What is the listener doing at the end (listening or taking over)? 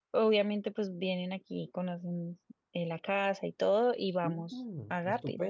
taking over